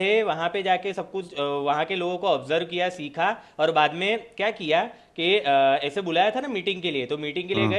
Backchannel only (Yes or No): Yes